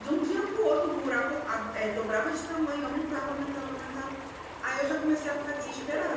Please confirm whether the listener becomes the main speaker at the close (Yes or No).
No